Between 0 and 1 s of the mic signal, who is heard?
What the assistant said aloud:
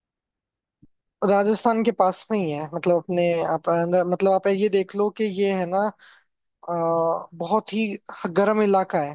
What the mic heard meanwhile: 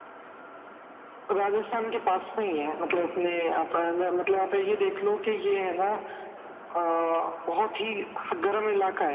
neither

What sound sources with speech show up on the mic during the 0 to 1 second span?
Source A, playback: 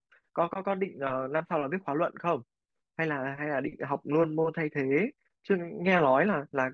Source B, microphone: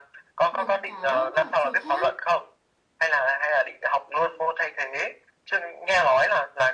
both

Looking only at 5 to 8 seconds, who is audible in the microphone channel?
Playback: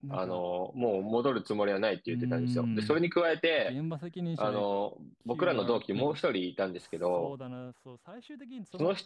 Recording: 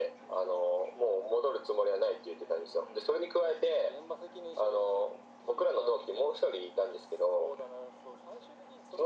echo only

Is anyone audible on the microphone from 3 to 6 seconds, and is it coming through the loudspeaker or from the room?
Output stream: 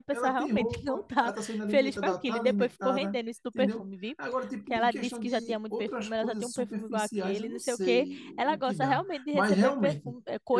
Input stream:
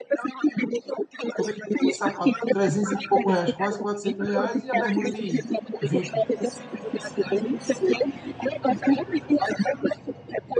both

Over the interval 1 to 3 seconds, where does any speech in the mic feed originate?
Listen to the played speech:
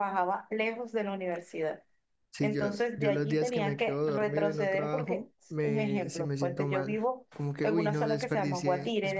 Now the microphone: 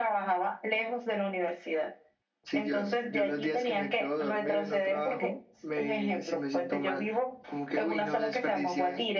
echo only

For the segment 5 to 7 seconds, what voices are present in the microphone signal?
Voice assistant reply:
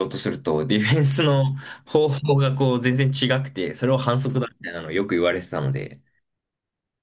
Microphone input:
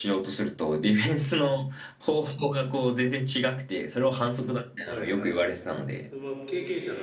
both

